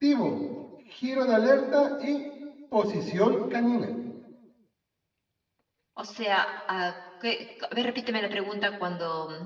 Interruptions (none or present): none